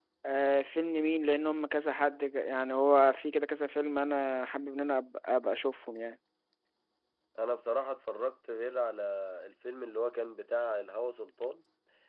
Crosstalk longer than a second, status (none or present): none